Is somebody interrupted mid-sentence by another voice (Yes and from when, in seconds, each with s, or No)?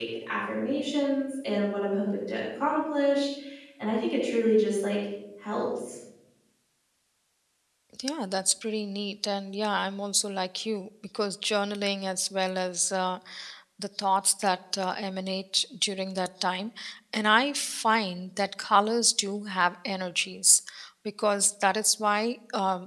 No